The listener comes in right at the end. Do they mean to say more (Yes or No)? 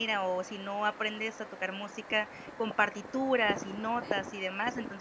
No